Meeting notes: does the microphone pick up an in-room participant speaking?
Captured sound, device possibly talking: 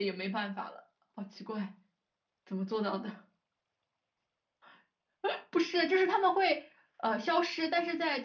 Yes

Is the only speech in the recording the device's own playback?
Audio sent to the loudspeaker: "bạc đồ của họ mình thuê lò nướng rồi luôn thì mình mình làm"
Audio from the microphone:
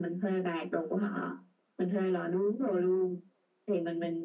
Yes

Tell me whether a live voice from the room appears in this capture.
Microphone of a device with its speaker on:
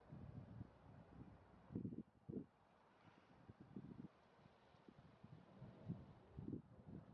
No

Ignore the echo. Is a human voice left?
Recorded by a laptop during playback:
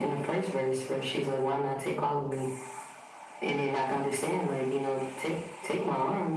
No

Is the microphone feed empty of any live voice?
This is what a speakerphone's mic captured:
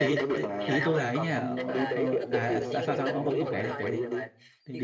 No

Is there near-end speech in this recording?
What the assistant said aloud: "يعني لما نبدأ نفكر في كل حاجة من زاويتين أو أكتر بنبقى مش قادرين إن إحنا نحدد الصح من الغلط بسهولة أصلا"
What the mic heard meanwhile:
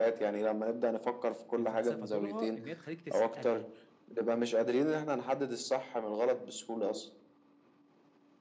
Yes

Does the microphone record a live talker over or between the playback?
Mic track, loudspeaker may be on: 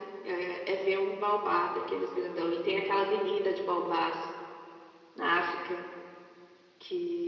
No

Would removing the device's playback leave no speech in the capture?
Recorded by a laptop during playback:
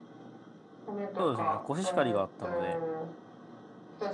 No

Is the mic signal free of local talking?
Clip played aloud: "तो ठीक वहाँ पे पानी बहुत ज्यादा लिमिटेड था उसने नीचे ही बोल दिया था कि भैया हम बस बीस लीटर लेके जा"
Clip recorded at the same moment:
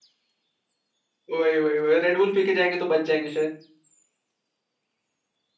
No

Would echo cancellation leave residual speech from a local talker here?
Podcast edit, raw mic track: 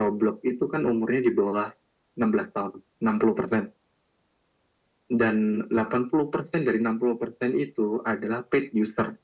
No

